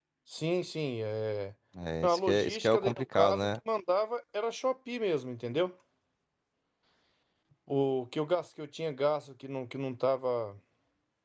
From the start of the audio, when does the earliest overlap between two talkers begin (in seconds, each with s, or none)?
2.0 s